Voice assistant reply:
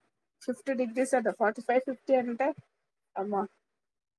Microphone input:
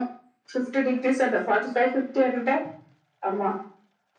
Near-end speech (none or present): none